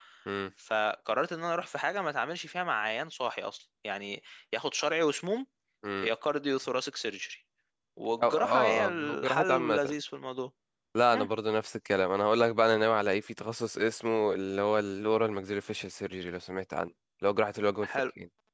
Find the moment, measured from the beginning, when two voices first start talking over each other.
8.2 s

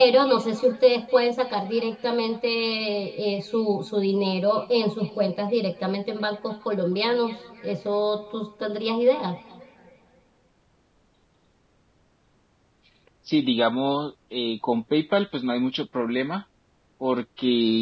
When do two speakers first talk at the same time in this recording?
none

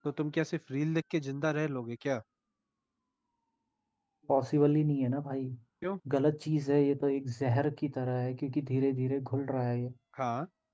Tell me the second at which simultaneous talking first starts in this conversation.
none

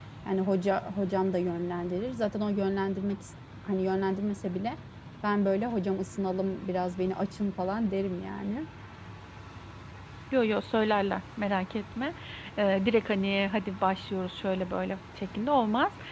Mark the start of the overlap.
none

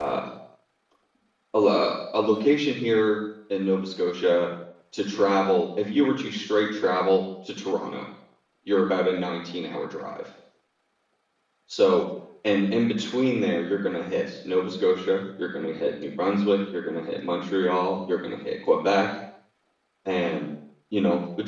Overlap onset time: none

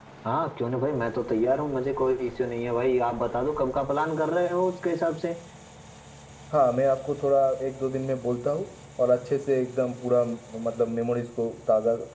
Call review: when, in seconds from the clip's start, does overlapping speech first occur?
none

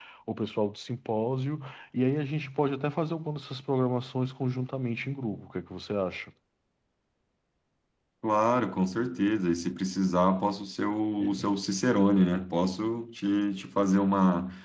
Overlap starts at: none

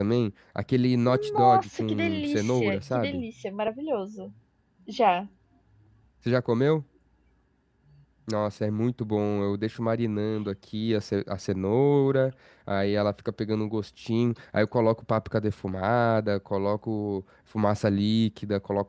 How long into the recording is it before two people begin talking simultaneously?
1.1 s

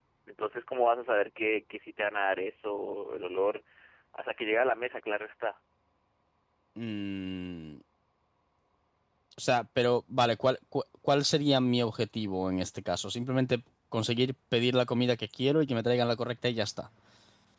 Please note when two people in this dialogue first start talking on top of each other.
none

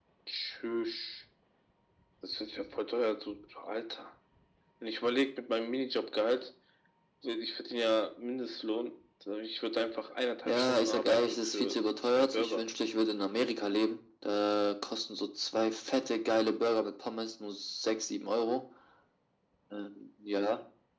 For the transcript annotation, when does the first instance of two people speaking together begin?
10.4 s

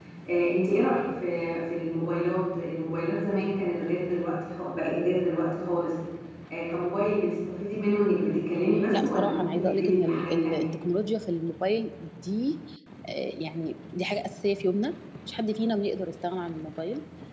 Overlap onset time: 8.9 s

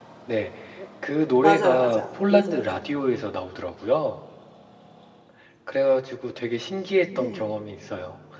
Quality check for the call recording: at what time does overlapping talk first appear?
1.4 s

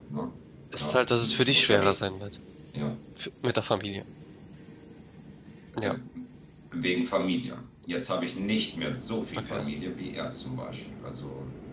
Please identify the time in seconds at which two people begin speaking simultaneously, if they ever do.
0.7 s

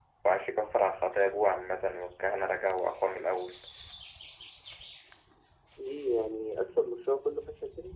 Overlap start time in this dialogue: none

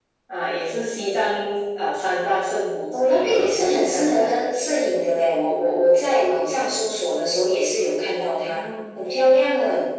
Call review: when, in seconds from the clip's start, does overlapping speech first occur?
3.0 s

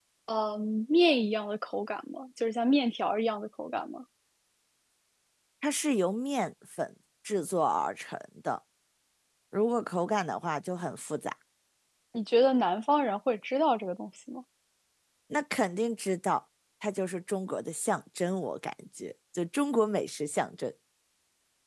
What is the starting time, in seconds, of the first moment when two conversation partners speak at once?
none

